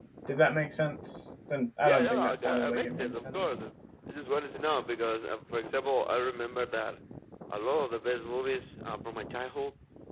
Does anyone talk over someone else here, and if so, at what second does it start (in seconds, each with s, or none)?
1.8 s